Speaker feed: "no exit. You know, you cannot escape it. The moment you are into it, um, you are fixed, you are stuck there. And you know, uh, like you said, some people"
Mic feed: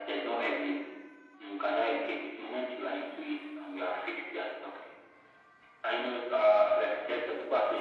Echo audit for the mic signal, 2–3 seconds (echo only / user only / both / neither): echo only